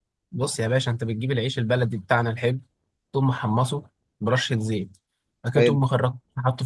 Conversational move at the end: listening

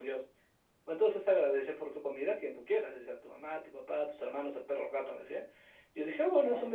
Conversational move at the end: listening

